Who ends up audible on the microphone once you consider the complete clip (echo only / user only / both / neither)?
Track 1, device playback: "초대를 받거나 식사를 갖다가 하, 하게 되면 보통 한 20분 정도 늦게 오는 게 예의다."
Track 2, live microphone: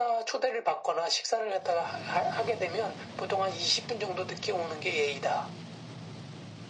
echo only